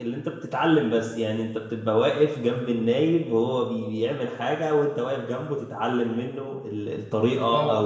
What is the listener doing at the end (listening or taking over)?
listening